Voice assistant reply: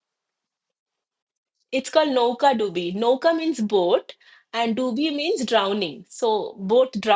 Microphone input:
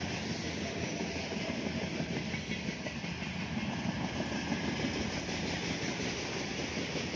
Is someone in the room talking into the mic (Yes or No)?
No